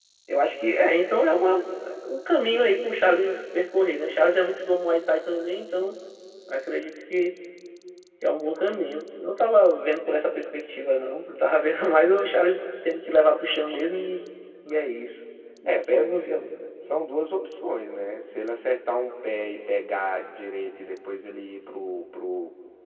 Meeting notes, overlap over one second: none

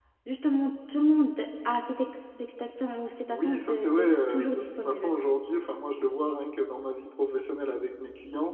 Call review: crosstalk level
present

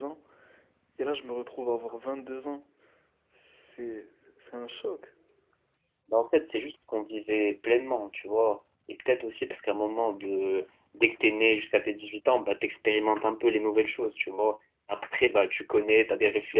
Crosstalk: none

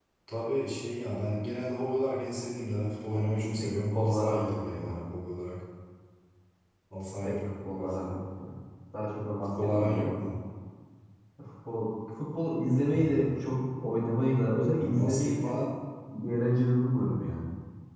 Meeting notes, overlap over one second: present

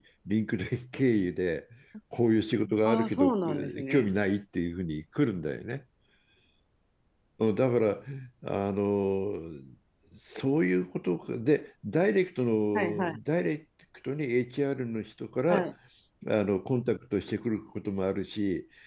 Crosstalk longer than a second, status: present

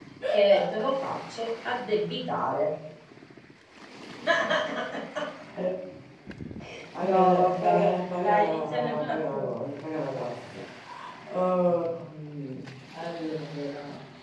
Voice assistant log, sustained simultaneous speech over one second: present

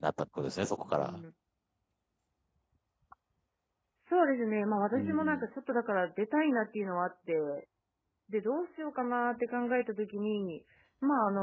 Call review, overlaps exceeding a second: none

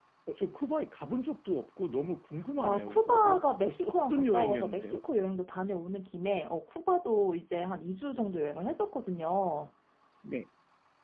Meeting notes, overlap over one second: present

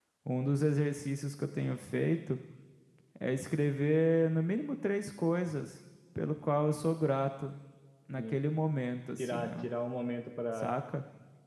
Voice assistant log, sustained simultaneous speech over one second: none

